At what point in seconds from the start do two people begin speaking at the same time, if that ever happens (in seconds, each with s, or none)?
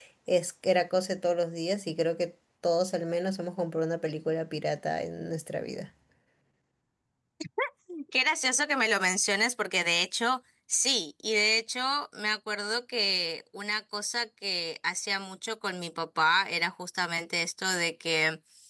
none